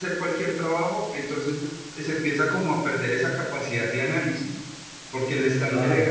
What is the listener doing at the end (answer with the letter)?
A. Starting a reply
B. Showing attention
B